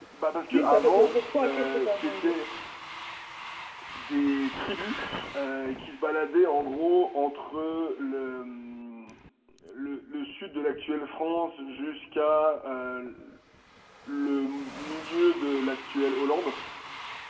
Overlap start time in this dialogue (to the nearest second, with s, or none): 1 s